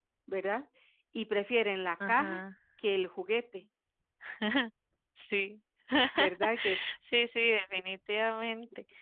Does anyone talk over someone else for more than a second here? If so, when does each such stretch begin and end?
none

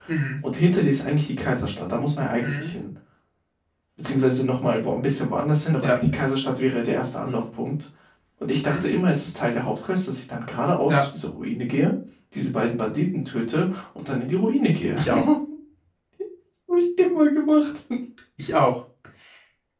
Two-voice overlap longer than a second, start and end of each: none

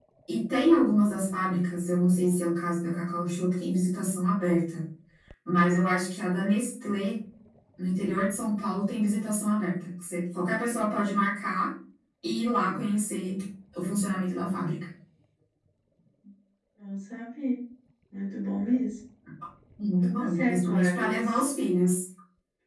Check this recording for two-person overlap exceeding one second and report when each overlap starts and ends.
20.0-21.4

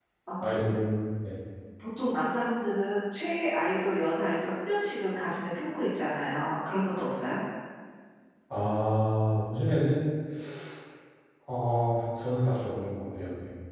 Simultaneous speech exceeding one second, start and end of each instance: none

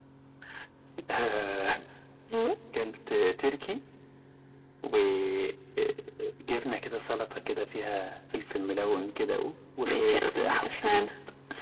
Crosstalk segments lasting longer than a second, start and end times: 9.8-11.1

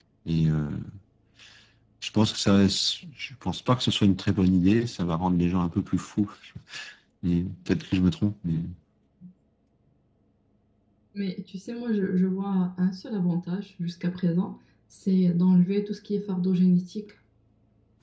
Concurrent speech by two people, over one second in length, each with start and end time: none

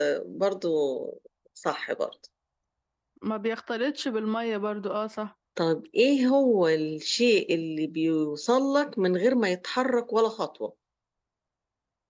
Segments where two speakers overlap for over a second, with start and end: none

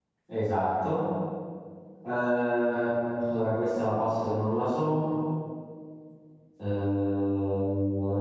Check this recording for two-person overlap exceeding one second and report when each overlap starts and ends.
none

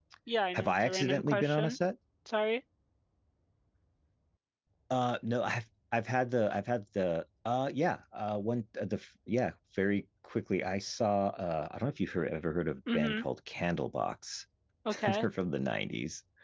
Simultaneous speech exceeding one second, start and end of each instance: 0.5-1.8

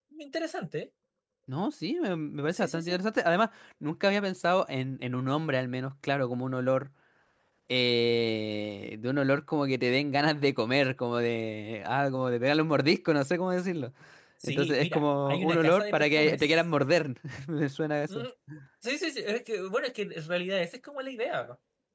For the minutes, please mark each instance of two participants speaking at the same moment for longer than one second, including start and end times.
14.4-16.6

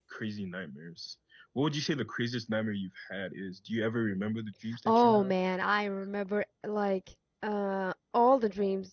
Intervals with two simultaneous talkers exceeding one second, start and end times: none

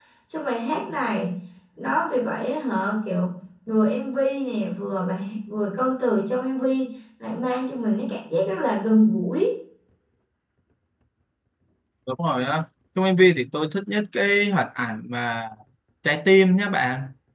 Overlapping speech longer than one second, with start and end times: none

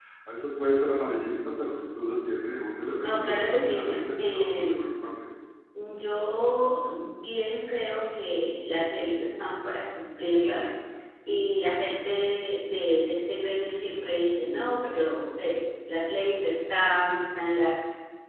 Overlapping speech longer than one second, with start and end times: 3.0-4.8

